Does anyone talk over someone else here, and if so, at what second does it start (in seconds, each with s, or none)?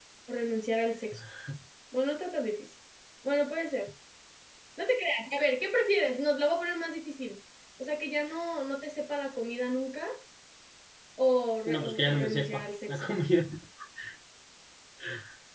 11.7 s